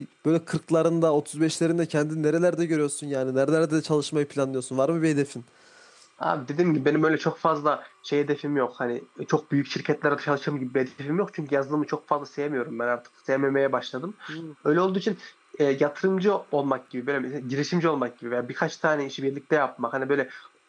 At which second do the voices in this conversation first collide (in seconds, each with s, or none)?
none